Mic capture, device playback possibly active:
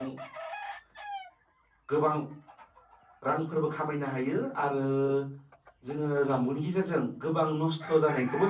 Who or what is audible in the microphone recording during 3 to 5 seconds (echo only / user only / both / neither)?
user only